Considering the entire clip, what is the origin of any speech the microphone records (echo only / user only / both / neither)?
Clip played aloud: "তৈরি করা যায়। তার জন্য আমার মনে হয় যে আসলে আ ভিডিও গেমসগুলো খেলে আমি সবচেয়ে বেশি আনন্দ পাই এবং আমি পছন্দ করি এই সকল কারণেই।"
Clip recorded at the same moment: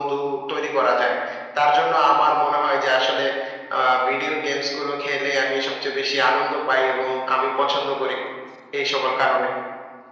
echo only